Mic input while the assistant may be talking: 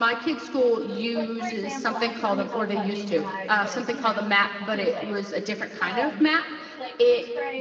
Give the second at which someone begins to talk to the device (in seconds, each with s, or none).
1.1 s